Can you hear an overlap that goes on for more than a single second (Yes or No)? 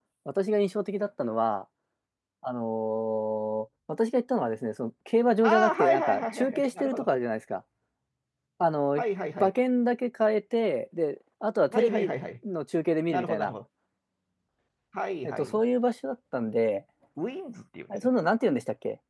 Yes